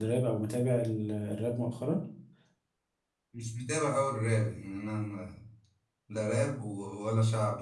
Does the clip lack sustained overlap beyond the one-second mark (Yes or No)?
Yes